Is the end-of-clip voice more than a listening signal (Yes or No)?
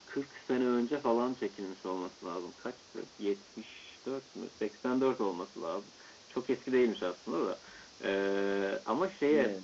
No